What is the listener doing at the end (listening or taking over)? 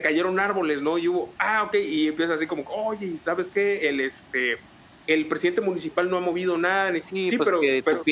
taking over